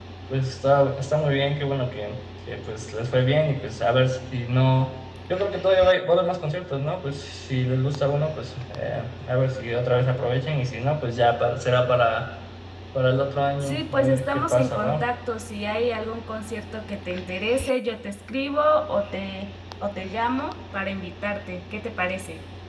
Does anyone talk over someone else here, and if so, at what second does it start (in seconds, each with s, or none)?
13.6 s